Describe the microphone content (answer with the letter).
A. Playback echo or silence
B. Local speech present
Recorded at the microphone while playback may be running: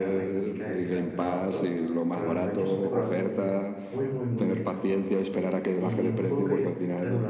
B